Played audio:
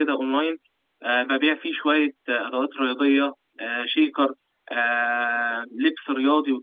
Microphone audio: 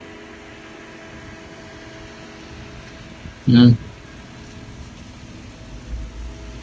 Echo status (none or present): none